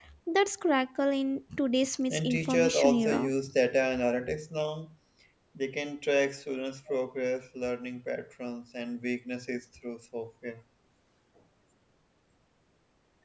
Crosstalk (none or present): present